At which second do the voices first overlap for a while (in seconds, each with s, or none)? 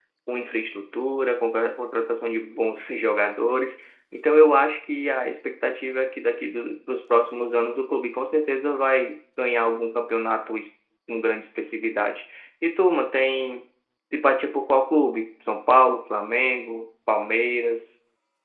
none